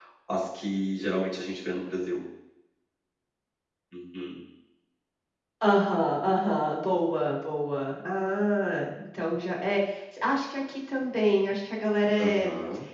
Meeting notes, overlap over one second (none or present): none